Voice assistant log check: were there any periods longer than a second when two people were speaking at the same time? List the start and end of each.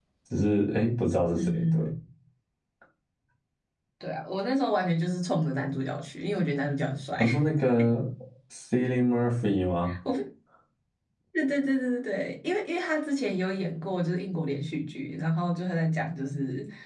none

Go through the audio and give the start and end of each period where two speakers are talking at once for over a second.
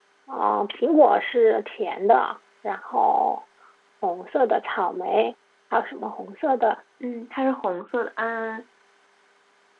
none

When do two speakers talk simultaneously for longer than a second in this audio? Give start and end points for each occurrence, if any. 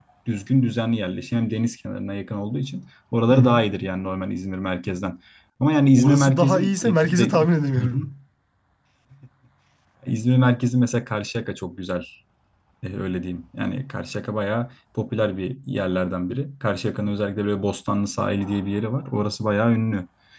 6.0-7.3

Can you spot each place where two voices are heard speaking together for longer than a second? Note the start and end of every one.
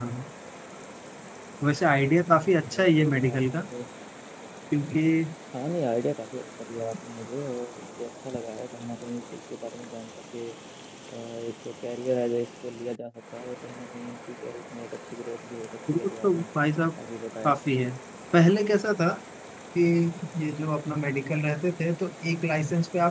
2.3-3.6

